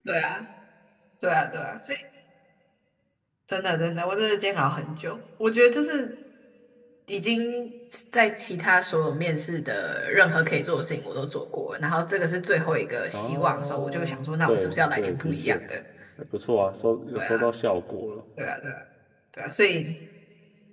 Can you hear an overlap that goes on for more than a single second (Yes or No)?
Yes